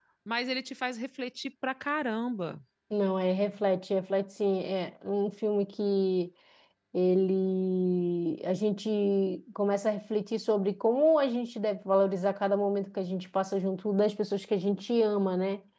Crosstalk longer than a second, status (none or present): none